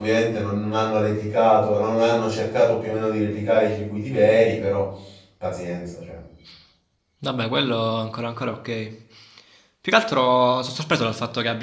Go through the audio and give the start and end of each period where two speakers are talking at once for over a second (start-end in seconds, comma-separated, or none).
none